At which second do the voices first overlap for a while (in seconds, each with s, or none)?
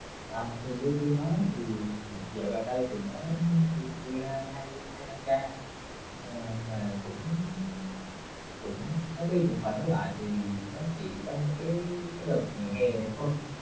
none